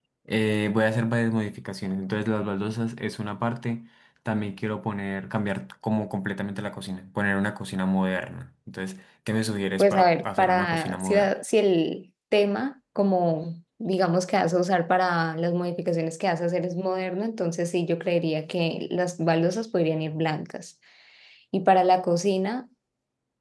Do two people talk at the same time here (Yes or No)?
Yes